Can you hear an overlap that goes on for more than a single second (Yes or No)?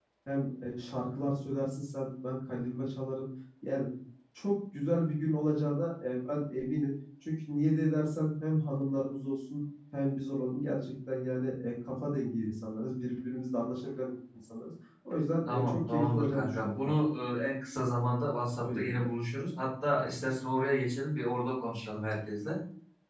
Yes